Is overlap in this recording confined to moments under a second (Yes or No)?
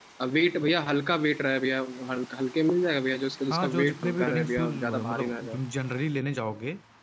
No